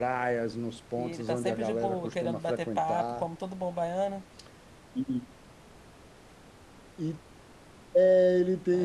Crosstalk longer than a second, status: present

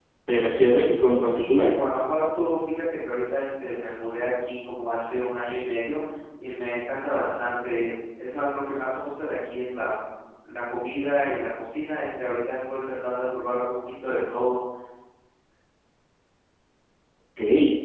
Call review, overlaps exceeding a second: none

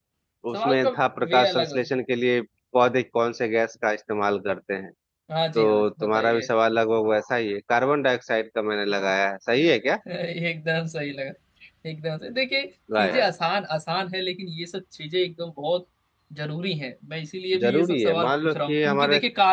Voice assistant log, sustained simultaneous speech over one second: present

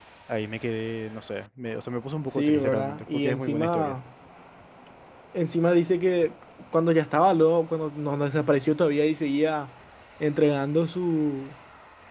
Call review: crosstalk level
present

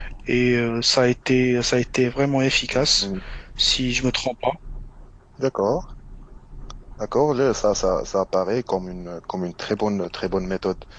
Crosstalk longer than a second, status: none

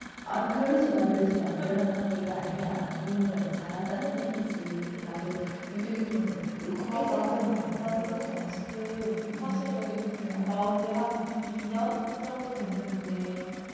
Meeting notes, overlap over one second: present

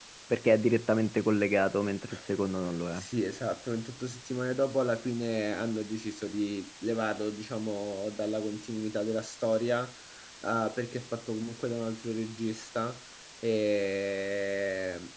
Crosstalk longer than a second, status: none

